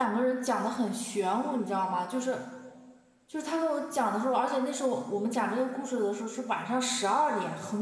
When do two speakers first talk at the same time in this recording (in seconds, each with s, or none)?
none